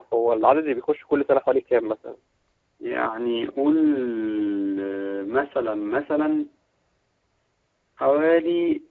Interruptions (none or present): none